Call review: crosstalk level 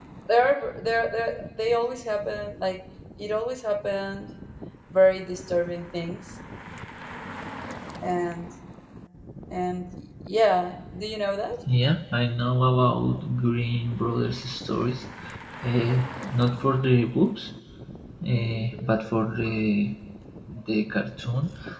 none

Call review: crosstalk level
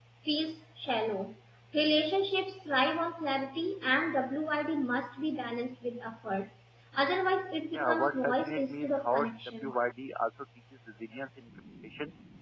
present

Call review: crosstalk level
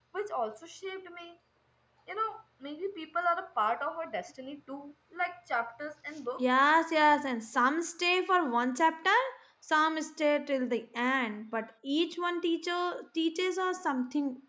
none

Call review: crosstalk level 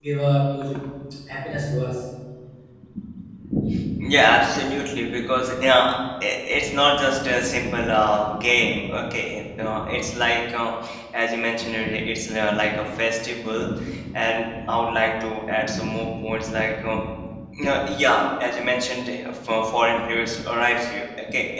none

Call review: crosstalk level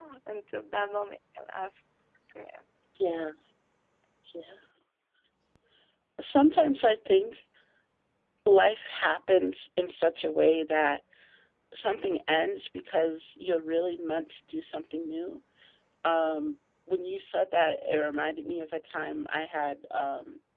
none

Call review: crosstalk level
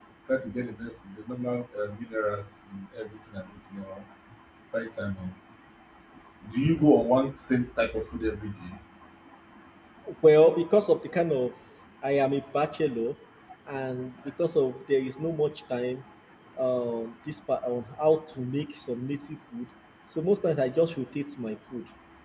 none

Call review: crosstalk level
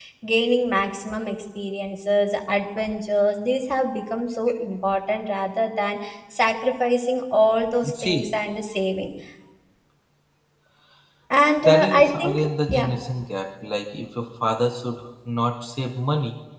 present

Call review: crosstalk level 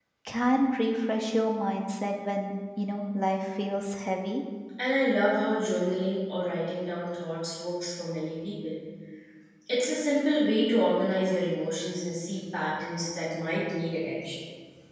none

